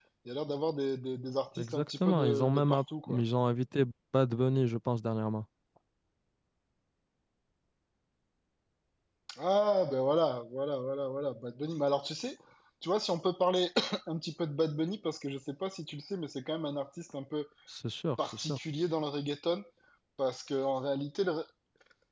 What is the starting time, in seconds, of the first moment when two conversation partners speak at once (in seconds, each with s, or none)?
1.6 s